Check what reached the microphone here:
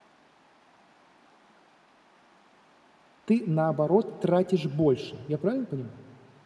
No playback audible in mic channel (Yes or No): Yes